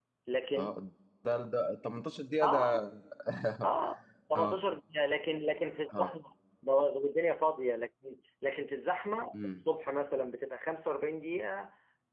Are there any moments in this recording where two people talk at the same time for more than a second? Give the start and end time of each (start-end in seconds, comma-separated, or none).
none